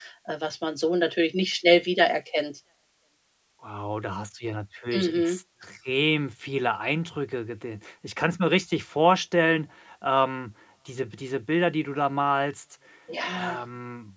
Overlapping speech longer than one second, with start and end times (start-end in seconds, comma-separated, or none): none